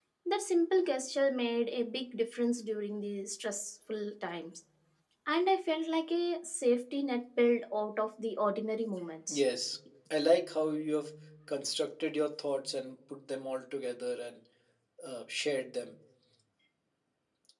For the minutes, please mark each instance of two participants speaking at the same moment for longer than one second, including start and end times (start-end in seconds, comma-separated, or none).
none